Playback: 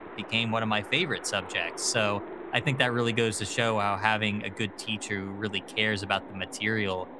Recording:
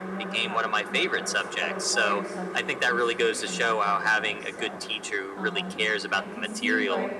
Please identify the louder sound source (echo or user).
echo